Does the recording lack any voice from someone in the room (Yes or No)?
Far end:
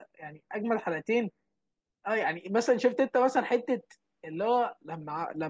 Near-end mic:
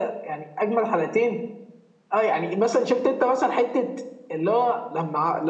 Yes